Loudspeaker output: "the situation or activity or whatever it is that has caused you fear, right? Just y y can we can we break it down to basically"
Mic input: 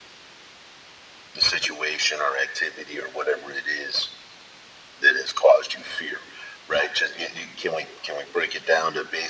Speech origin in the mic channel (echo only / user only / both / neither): echo only